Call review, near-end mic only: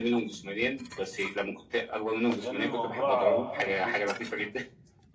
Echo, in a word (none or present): present